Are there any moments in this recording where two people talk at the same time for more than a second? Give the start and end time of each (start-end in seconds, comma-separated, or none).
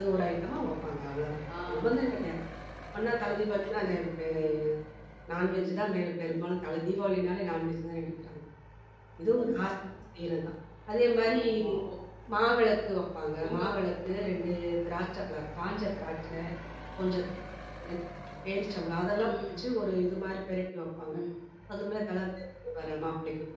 none